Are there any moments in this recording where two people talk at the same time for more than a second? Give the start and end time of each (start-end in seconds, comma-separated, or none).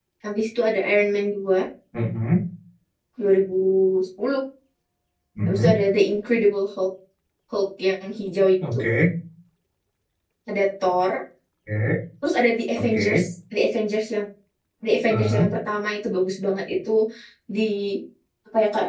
none